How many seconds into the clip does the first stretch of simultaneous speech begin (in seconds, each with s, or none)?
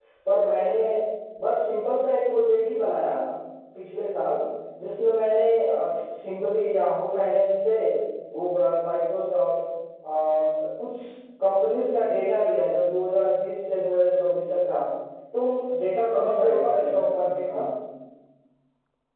16.1 s